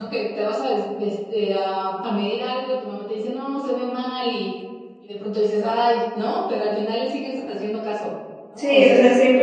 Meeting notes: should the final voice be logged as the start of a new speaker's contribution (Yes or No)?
Yes